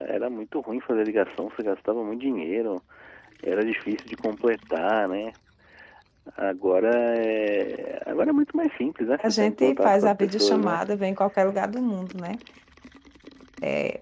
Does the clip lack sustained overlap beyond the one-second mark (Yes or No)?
No